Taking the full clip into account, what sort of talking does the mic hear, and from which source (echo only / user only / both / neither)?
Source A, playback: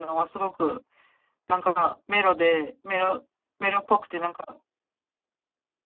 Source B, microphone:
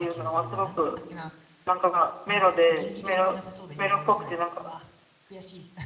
both